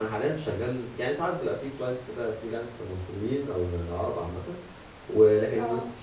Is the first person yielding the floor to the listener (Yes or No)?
No